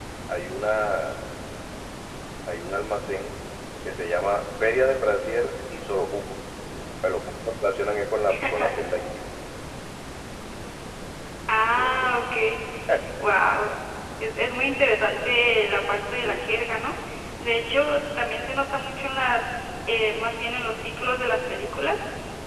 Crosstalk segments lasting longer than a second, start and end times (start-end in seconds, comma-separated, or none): none